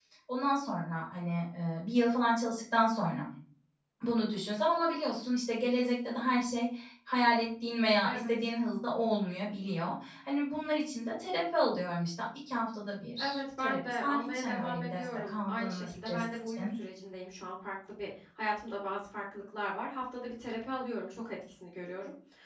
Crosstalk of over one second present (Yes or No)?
Yes